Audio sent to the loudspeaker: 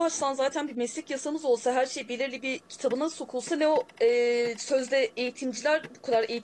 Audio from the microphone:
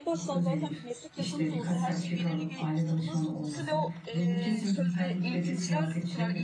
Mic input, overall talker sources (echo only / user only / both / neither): both